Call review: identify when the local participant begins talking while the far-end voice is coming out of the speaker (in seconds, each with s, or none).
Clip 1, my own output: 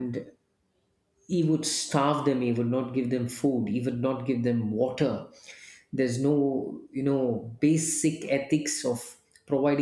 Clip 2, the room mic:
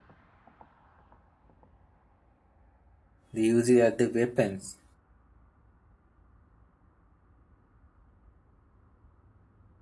3.3 s